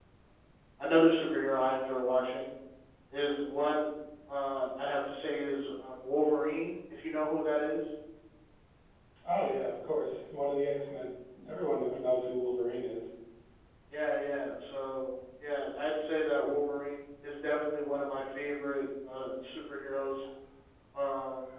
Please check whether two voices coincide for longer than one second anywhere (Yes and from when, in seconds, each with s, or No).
No